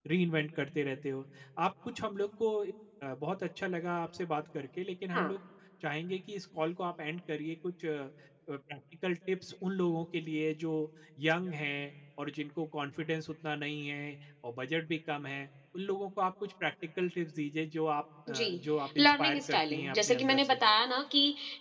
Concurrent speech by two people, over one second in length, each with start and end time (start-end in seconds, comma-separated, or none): 19.0-20.6